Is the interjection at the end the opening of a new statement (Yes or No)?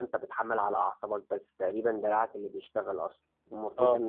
No